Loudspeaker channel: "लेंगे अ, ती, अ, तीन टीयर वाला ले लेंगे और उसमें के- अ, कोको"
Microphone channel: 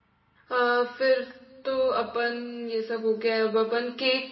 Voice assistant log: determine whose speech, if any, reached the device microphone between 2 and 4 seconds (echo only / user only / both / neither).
user only